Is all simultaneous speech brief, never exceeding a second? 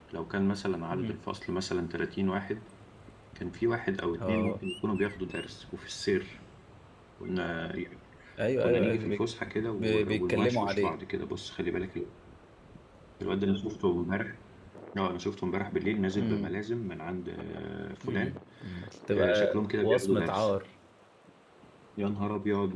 No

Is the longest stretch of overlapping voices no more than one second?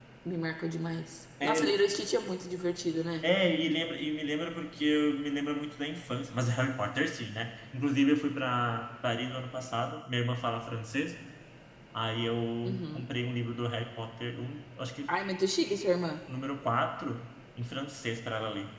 Yes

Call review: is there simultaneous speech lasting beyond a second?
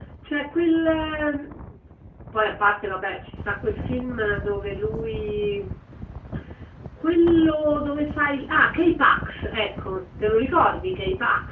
No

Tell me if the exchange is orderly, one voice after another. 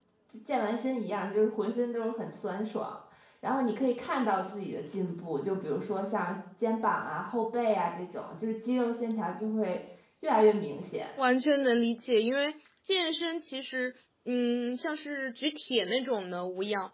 Yes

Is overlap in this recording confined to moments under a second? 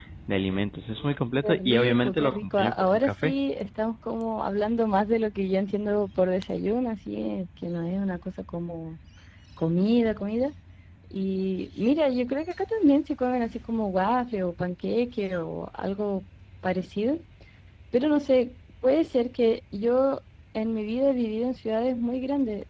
No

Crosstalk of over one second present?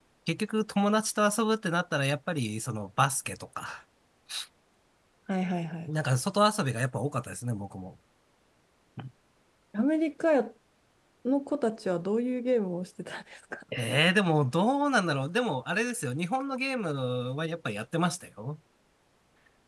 No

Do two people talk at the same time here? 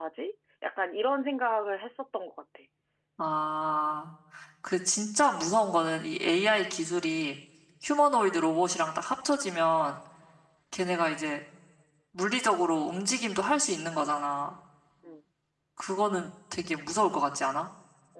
No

